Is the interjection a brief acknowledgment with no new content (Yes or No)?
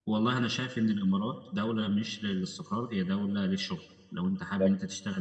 Yes